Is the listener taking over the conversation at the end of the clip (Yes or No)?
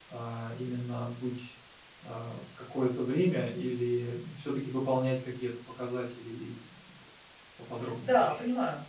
Yes